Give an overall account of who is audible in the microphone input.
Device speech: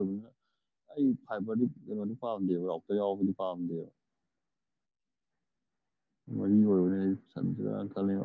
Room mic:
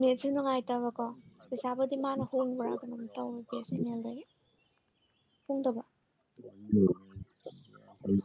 both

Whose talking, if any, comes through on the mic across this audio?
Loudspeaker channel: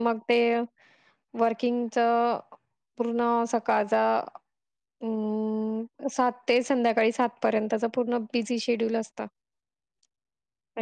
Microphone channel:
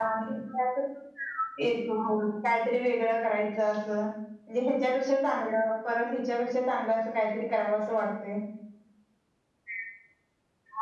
user only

